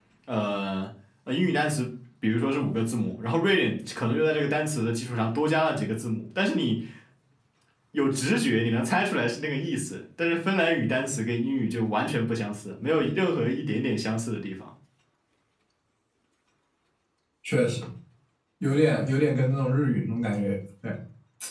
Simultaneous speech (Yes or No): No